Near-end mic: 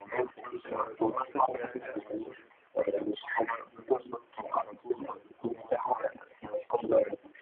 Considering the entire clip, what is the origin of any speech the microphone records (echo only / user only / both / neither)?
both